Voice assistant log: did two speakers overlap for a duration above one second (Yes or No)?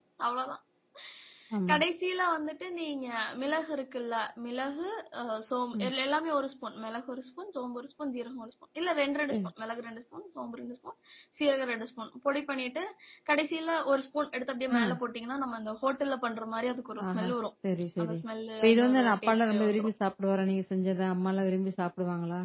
Yes